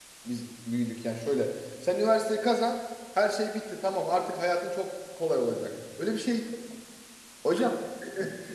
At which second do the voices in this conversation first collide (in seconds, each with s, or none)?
none